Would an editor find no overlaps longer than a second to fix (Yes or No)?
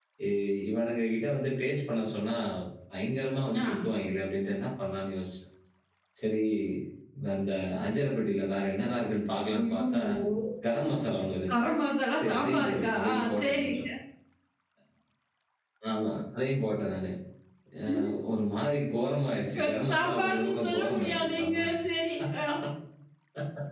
No